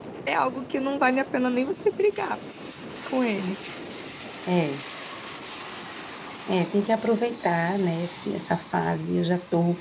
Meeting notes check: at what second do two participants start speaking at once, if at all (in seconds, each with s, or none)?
none